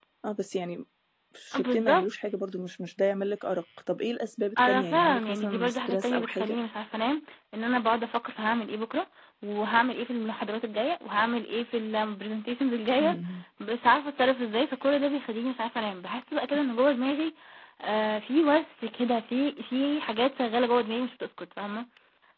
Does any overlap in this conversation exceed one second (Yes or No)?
Yes